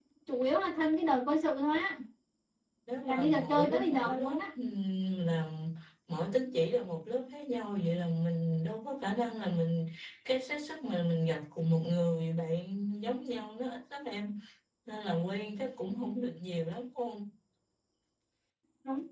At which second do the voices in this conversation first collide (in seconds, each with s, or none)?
3.0 s